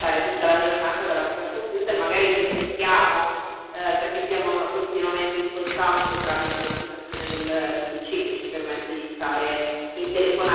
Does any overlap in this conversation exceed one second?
No

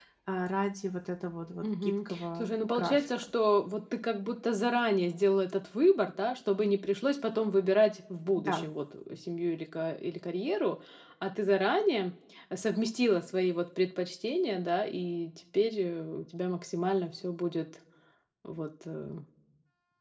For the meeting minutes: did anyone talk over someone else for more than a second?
Yes, from 1.6 s

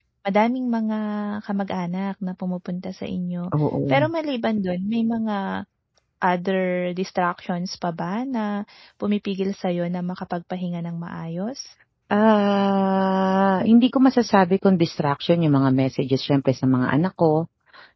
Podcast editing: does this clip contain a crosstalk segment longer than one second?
No

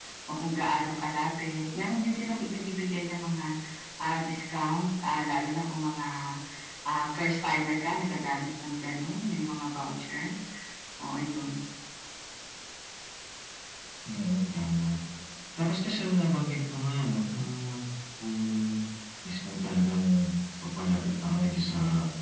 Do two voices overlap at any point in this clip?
No

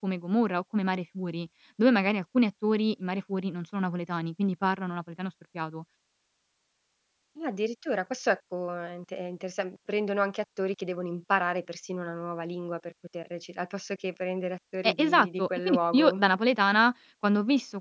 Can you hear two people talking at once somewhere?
Yes, from 14.8 s

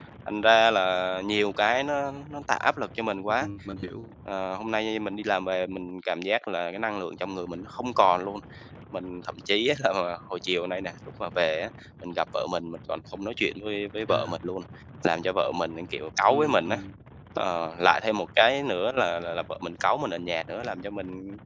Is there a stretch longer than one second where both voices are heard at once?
No

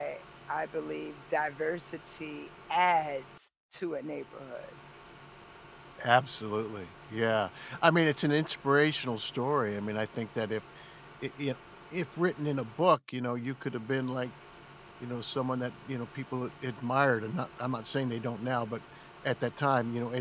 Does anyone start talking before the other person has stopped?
No

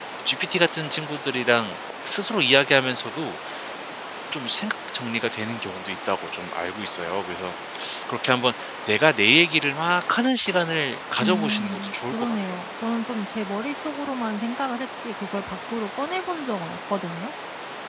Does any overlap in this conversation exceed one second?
Yes, from 11.2 s

